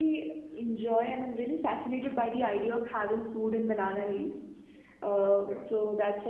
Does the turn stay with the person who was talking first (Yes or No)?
Yes